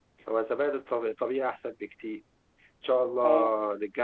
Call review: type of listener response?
listening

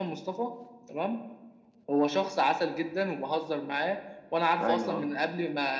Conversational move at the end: listening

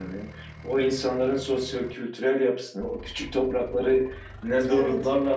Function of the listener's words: listening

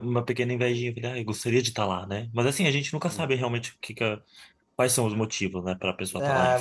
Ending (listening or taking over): taking over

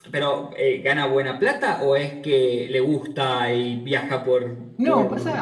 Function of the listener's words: taking over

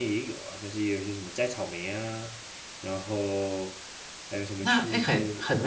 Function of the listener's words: taking over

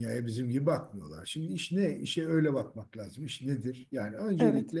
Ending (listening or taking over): listening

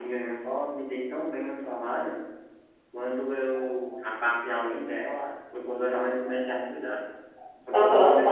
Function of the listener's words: taking over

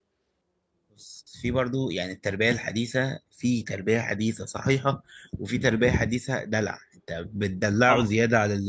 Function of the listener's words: listening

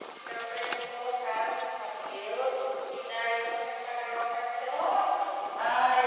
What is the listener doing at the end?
taking over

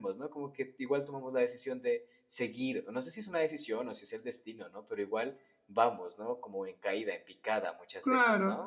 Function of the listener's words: taking over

